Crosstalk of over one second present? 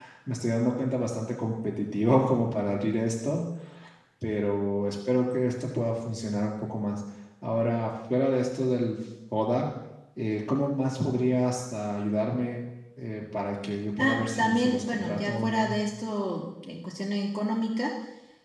Yes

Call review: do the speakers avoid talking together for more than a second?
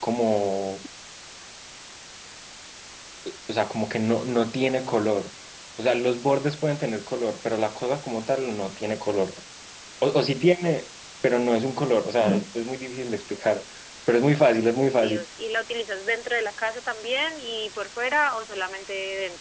Yes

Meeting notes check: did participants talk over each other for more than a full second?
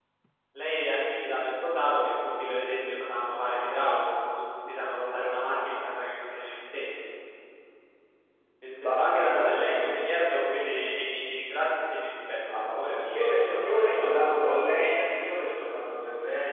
Yes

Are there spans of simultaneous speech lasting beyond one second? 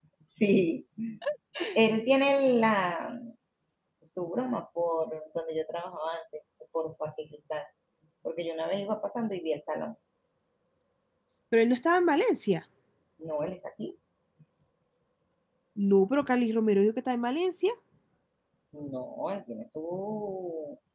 No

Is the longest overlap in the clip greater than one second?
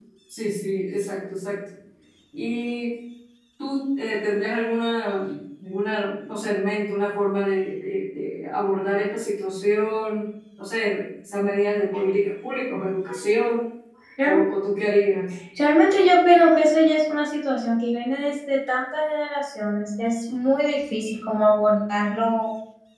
No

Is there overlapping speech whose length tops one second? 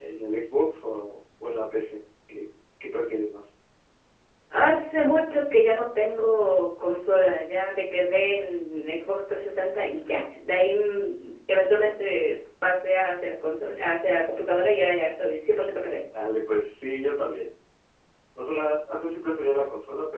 No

